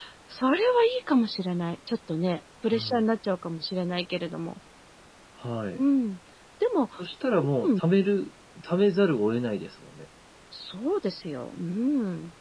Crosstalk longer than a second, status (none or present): none